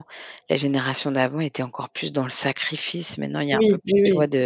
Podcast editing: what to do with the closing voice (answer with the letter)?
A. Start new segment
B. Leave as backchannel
A